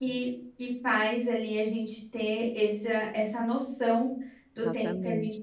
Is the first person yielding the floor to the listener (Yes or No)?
No